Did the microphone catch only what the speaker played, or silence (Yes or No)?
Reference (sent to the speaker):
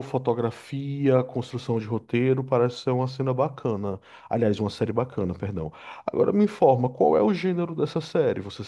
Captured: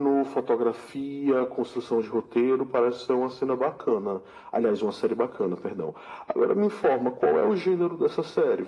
Yes